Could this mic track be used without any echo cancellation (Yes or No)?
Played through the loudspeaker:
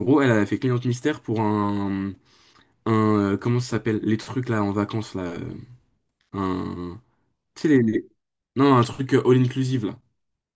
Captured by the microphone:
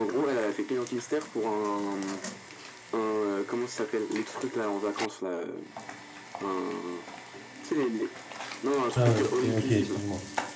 No